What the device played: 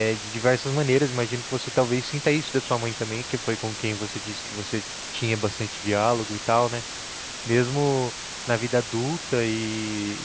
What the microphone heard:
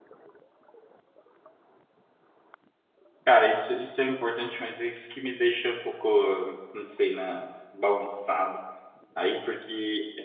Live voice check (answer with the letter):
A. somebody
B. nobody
A